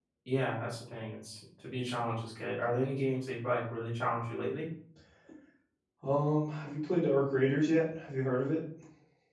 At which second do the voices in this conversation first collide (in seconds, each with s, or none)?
none